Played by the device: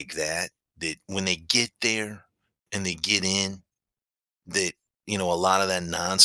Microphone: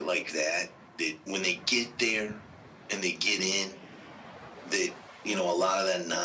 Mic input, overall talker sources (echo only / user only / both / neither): echo only